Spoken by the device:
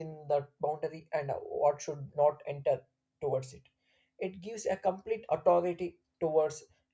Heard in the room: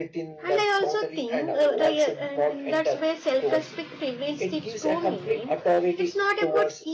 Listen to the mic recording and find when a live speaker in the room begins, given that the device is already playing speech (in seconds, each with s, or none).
0.4 s